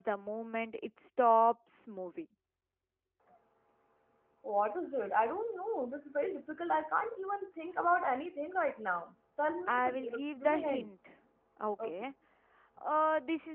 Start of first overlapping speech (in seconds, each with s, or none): 9.7 s